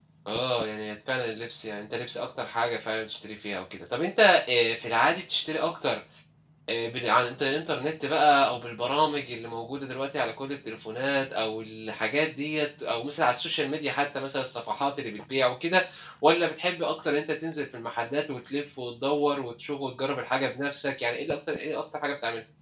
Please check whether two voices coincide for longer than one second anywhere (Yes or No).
No